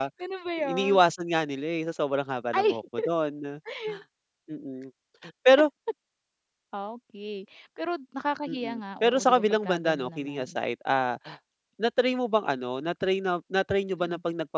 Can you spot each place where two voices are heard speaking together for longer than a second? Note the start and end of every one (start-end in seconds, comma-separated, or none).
8.5-10.5